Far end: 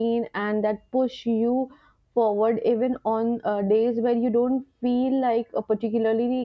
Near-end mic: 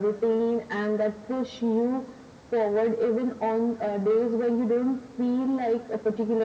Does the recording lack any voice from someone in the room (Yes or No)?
Yes